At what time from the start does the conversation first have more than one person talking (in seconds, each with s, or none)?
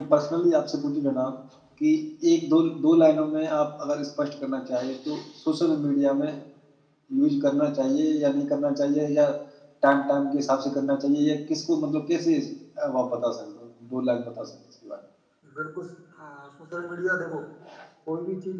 none